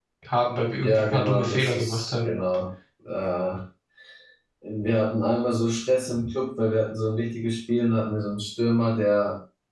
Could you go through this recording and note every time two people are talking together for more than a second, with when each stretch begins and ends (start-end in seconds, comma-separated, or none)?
0.8-2.4